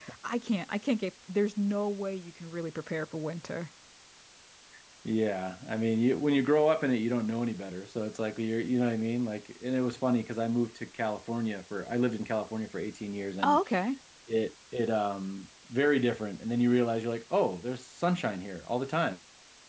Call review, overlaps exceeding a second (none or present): none